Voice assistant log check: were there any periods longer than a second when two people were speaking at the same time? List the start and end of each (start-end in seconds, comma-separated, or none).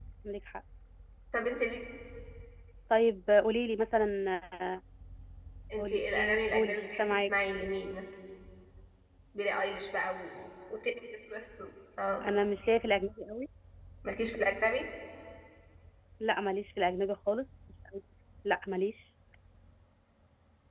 5.8-7.3